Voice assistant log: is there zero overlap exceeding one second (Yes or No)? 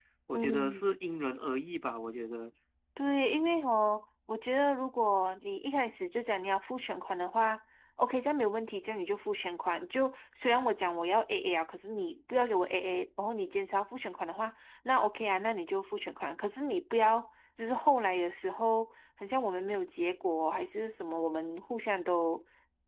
Yes